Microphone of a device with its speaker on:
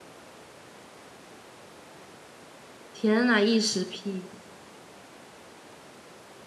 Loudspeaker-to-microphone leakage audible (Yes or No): No